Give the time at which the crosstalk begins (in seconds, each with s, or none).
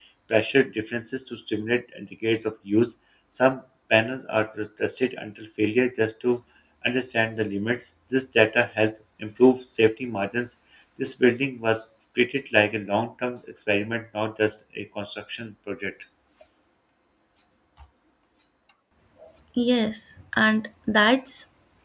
none